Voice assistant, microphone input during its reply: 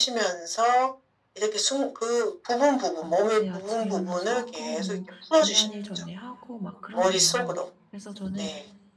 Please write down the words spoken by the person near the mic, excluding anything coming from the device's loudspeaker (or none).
어 네 아침에 일어나서 하고 뭐 중요한 일 전에 하고 막 그런대요. 그래서 저는